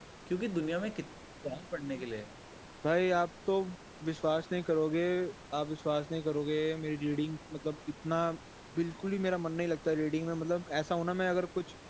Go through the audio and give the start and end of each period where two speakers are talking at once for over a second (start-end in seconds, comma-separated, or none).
none